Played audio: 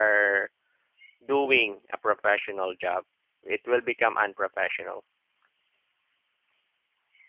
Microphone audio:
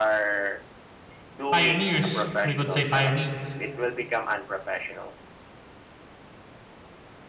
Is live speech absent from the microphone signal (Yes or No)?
No